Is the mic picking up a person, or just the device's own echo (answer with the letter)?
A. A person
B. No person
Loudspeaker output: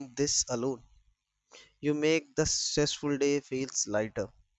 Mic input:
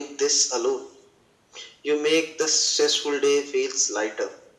B